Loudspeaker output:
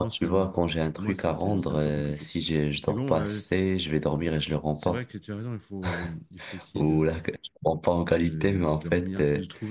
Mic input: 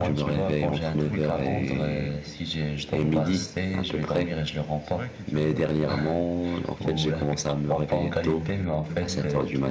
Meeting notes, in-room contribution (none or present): present